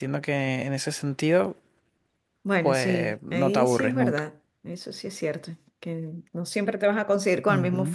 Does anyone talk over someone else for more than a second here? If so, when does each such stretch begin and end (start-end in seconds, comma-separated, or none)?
2.6-4.2